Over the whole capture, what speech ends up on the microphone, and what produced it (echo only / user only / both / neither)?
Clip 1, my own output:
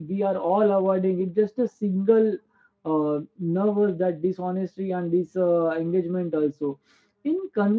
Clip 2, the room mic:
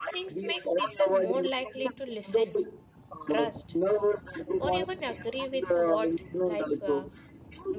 both